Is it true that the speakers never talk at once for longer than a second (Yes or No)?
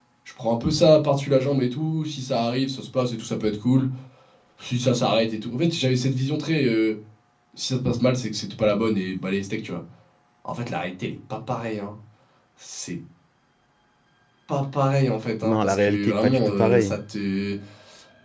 No